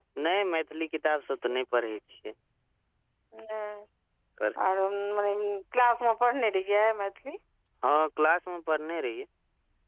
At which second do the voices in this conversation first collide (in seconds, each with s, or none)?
none